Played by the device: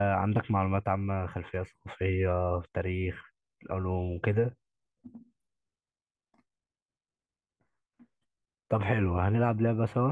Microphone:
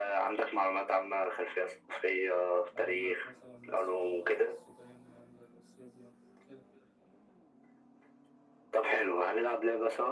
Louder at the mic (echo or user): echo